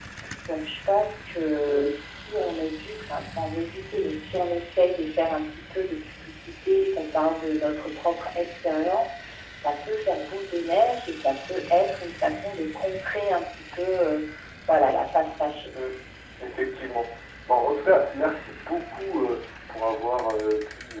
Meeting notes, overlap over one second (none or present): none